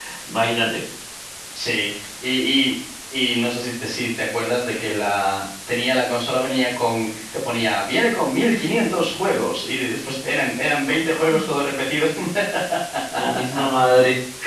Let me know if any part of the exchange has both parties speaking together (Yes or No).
No